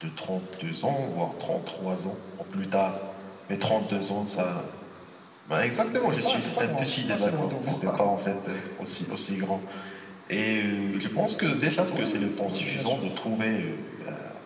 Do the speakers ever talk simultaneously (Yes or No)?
Yes